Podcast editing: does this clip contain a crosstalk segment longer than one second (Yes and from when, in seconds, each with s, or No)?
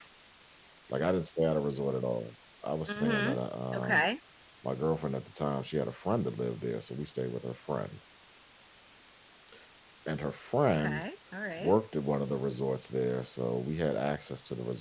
No